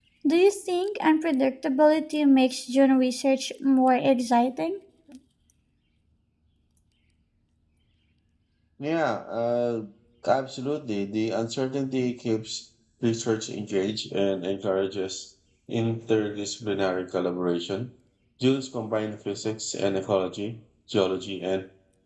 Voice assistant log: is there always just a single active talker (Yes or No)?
Yes